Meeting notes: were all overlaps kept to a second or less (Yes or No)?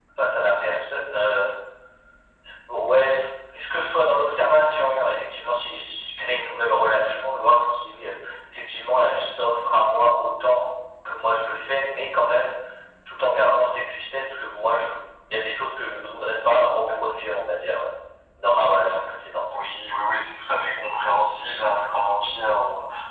Yes